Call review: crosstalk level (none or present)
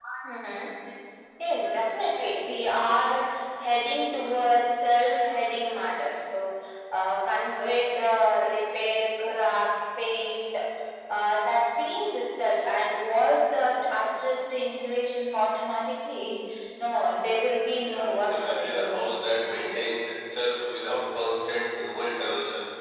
present